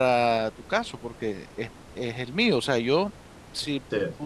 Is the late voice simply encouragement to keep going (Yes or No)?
Yes